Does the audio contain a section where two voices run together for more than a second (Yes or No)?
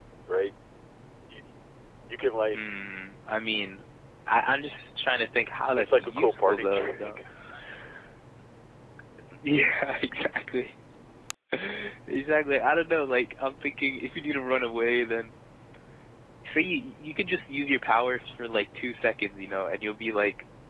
Yes